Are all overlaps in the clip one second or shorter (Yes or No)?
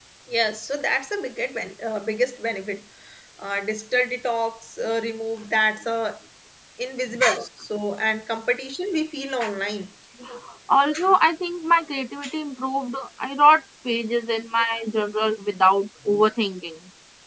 Yes